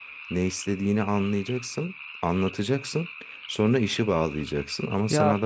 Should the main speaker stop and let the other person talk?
No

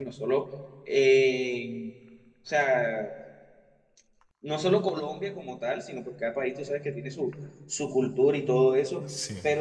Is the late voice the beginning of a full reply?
No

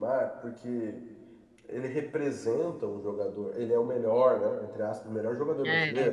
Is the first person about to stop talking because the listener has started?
No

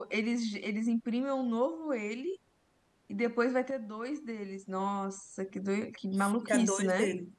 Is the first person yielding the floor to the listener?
Yes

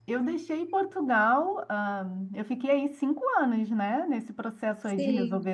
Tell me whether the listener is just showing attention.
Yes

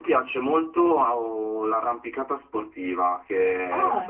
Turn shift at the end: No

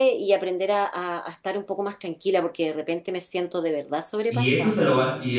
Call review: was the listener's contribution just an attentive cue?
No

